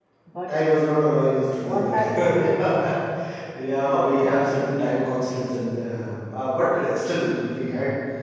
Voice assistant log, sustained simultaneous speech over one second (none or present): present